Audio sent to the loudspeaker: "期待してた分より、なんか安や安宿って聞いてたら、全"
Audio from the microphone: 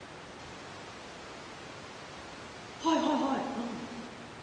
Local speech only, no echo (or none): はいはいはい、うん。